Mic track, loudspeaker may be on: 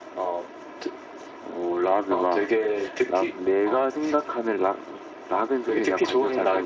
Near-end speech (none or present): none